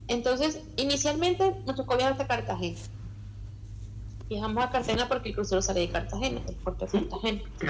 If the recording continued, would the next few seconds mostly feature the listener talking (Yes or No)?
Yes